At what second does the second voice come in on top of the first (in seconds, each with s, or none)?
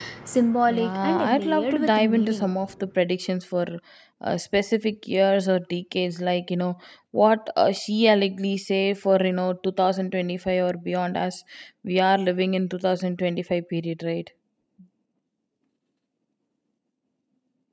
0.7 s